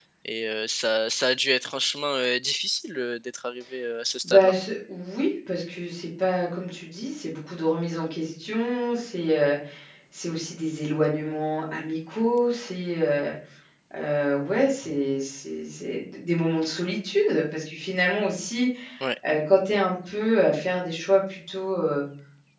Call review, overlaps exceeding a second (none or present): none